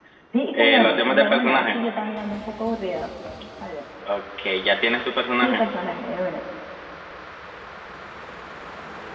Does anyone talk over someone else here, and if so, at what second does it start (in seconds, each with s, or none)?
0.5 s